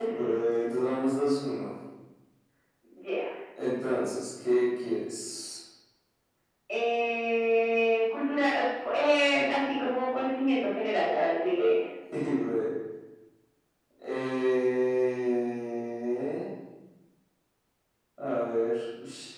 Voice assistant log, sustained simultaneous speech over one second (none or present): none